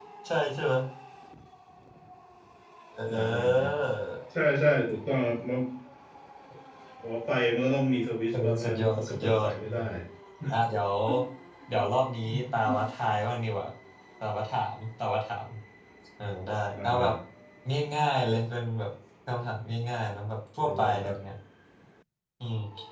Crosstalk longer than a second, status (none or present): present